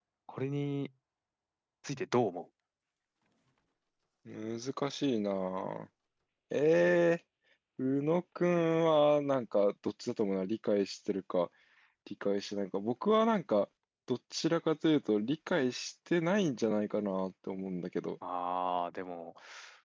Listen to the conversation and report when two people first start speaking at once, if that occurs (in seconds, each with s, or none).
none